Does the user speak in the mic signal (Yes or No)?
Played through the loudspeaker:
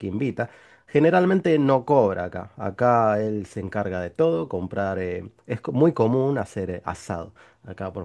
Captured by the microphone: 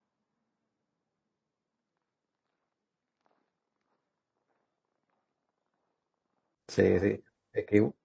Yes